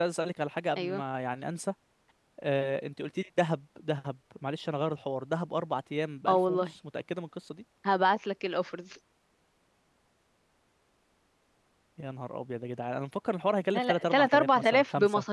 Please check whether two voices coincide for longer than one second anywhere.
Yes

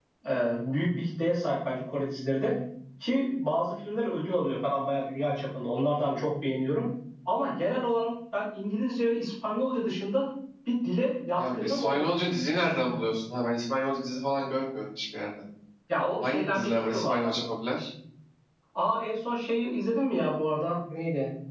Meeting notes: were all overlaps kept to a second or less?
No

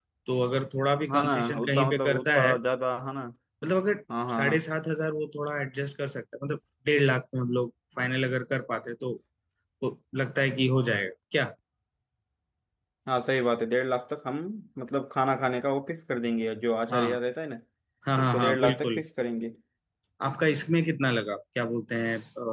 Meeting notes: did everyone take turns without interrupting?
No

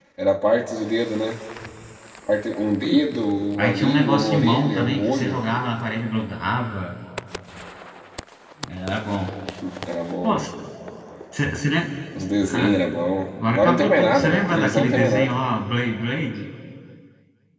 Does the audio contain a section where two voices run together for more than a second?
Yes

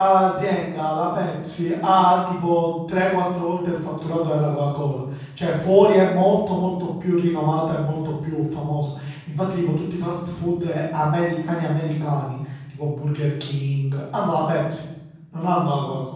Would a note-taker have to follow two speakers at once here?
No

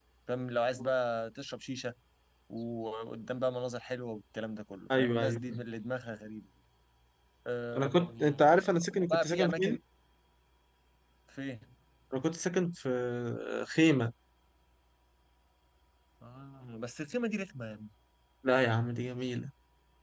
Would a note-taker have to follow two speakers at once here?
Yes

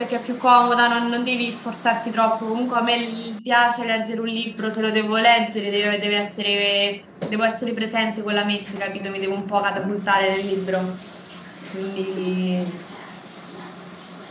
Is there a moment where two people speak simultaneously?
No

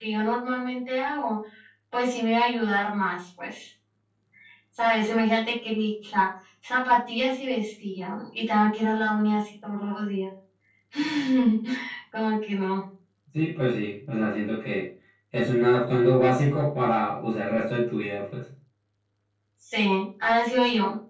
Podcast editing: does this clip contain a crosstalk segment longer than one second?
No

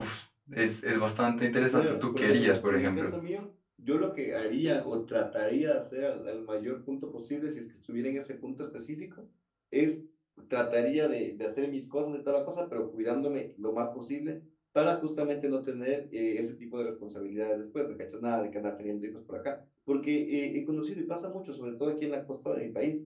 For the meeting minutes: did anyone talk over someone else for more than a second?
Yes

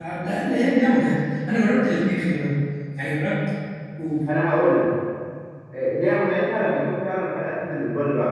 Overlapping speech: No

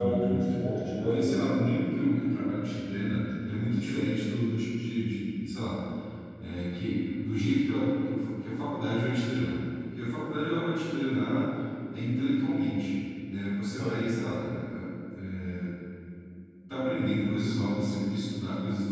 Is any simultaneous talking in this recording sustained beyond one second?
No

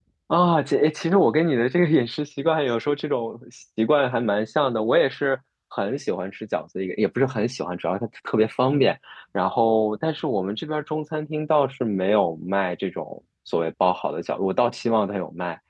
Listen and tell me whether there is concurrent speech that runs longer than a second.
No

